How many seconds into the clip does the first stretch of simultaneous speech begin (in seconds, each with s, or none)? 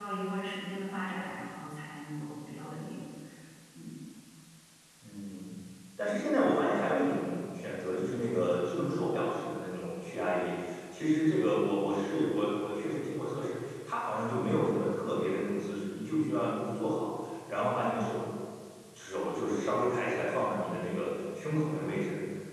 none